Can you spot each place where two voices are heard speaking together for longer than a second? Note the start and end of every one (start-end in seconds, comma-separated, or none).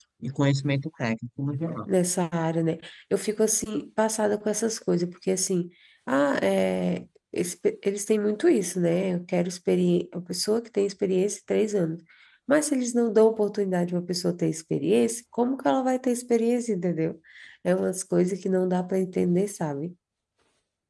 none